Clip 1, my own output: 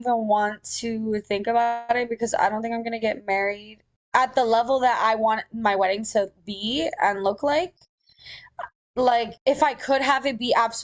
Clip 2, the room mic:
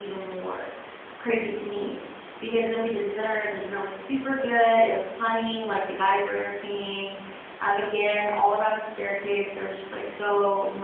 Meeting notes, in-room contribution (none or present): present